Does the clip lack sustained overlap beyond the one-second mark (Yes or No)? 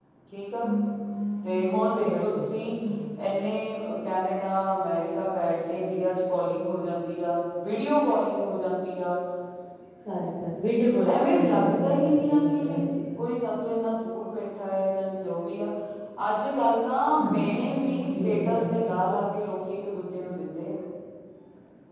No